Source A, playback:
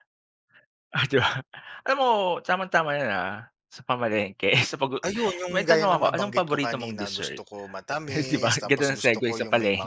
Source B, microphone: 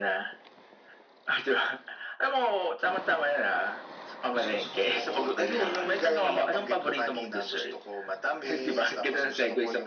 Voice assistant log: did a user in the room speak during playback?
Yes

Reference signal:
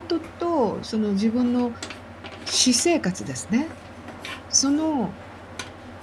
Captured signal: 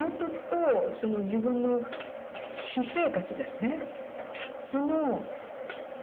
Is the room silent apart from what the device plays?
Yes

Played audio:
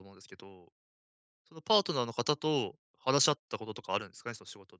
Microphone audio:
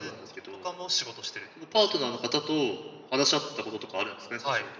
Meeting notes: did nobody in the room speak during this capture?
No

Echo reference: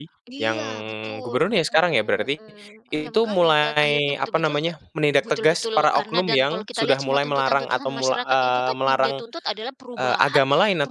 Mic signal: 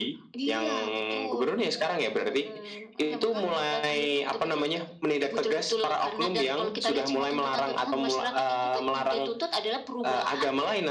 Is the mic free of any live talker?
Yes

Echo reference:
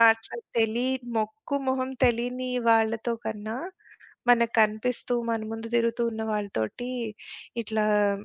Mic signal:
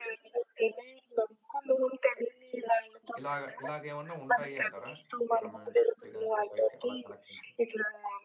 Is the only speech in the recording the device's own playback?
No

